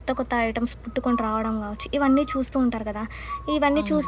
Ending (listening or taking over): listening